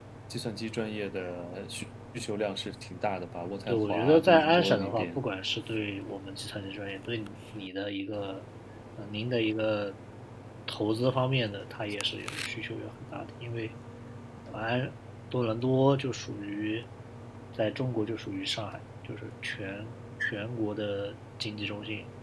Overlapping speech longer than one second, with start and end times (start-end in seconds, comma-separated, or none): 3.7-5.2